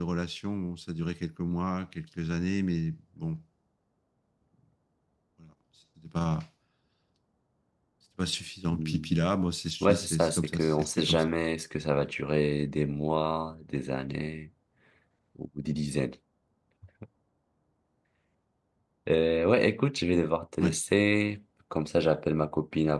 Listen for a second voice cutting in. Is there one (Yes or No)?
Yes